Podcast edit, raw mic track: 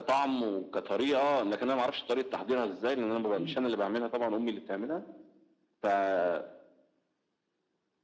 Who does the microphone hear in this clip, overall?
both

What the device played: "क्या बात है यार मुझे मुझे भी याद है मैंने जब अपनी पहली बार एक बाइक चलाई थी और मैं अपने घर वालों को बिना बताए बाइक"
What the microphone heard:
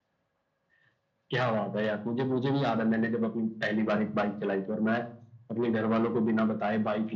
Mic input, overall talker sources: echo only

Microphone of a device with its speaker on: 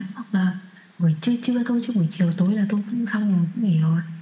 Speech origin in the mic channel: echo only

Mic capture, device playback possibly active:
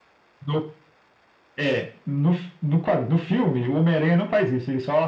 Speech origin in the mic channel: echo only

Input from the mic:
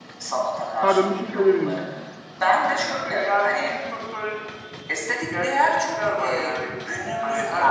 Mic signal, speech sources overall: both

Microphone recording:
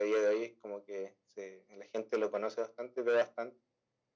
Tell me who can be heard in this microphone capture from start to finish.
echo only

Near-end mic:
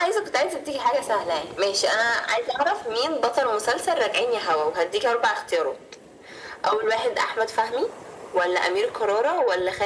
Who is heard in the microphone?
echo only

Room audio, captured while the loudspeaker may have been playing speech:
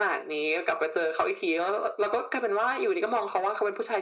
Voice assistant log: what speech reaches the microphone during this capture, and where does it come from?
echo only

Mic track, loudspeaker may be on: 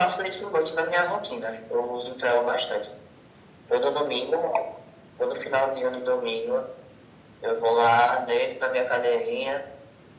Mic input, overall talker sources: echo only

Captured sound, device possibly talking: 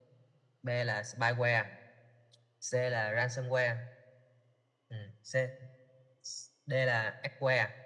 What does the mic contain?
echo only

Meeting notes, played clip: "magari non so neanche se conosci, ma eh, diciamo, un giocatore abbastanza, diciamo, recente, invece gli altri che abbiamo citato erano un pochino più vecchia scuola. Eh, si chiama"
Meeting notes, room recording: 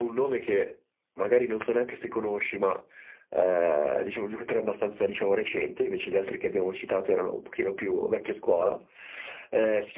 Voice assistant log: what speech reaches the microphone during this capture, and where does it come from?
echo only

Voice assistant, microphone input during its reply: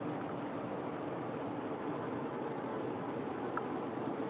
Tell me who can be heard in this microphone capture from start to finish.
neither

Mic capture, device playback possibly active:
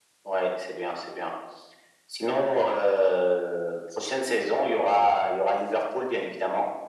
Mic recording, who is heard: echo only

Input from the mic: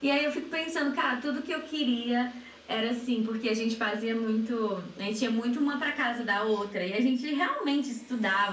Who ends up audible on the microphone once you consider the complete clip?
echo only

